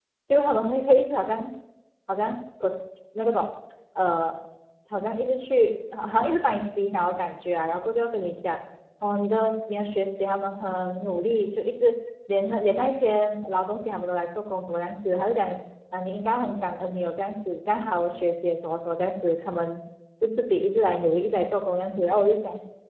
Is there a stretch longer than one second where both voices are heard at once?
No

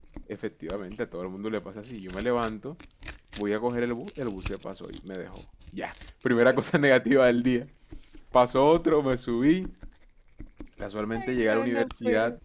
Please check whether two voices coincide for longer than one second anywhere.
Yes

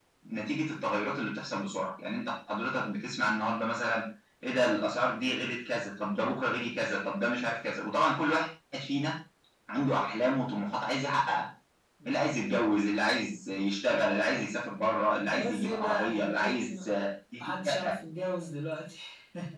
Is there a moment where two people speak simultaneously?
Yes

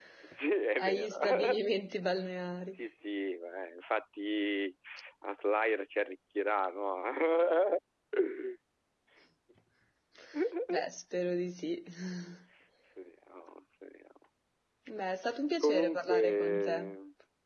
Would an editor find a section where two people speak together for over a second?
Yes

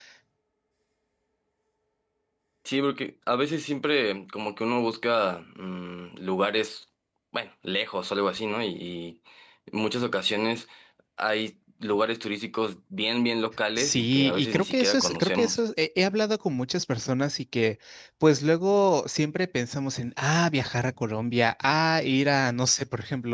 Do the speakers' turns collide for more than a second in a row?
Yes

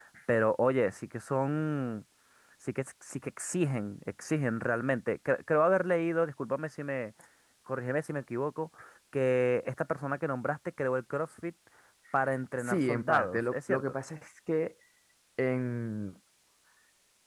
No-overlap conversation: No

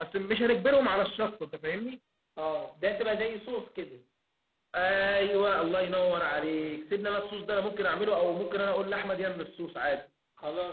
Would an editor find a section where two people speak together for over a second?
No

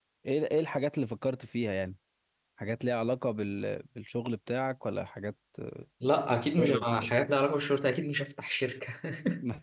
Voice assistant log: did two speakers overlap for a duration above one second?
No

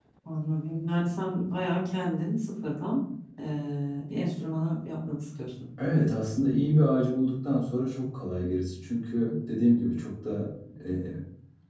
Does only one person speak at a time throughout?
Yes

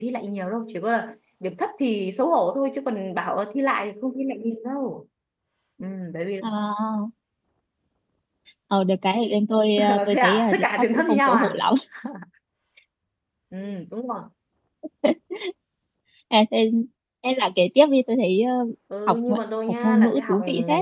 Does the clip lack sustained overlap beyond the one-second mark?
No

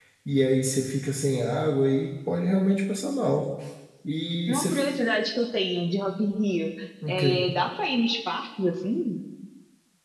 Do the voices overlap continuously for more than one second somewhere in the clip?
No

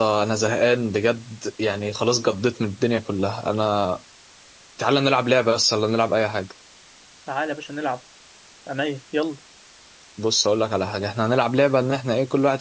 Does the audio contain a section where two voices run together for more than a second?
No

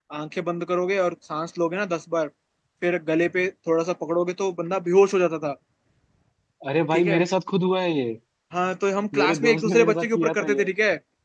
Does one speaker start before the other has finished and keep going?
Yes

